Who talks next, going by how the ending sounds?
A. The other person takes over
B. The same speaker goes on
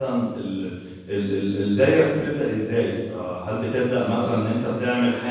B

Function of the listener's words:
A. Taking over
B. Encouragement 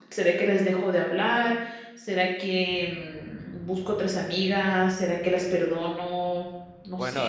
A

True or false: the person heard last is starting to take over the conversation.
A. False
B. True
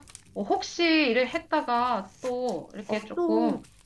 B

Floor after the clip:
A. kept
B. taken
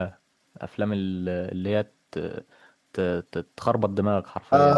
B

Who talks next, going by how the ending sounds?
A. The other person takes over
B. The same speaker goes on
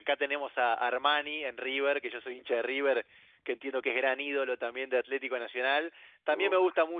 B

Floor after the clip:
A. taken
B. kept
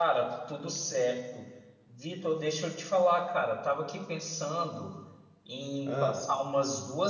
B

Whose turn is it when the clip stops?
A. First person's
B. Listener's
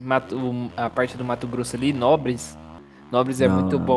A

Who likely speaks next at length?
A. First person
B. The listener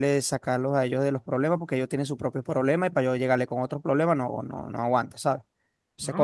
B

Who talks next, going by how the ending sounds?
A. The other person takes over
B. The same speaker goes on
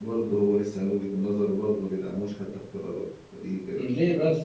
A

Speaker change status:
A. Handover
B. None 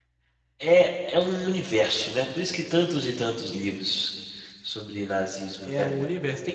A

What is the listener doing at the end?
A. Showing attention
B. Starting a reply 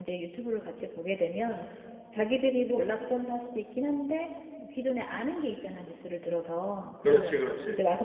A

